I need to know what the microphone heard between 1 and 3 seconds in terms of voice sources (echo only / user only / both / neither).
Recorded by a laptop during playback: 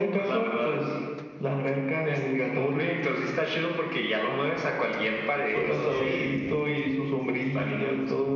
echo only